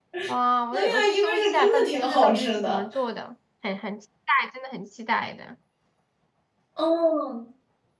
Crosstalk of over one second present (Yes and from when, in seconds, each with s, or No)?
Yes, from 0.7 s